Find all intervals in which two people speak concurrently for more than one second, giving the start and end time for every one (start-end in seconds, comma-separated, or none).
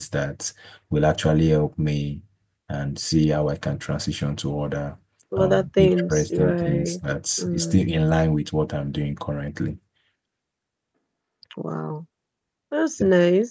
5.4-7.0